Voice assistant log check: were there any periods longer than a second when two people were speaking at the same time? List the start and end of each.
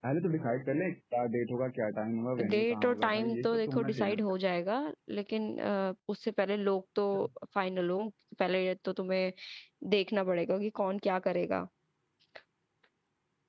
2.4-4.2

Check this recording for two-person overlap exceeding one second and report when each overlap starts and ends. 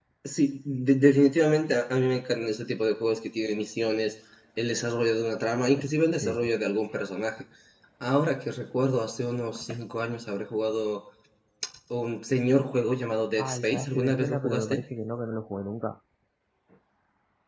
13.4-14.8

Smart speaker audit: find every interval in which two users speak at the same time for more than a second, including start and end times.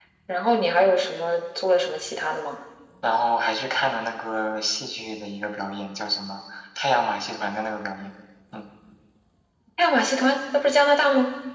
none

